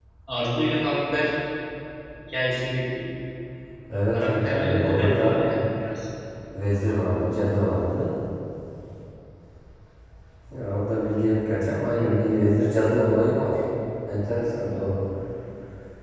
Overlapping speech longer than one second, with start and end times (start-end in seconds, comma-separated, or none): 4.1-5.5